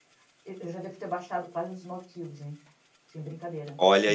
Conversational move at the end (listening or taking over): taking over